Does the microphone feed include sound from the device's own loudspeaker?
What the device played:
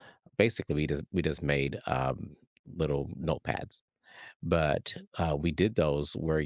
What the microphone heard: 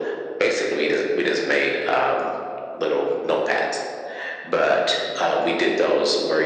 Yes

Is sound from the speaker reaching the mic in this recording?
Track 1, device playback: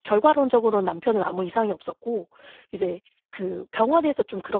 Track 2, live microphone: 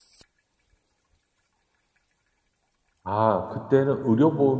No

